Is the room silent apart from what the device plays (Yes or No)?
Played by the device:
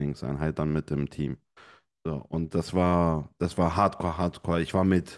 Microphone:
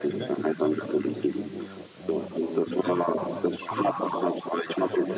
No